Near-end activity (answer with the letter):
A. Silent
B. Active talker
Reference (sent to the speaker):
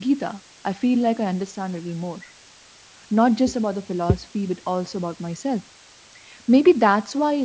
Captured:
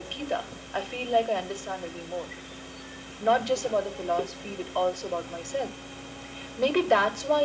A